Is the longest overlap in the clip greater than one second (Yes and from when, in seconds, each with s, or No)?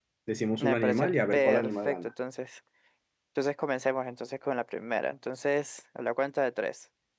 Yes, from 0.6 s